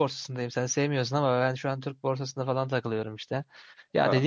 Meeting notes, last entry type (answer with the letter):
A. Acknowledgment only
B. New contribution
A